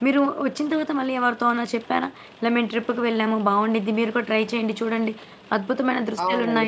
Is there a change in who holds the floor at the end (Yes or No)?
Yes